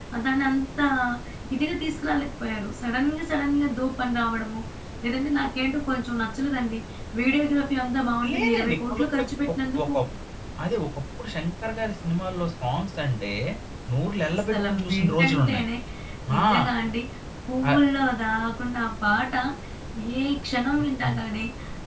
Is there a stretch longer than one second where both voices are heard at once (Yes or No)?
Yes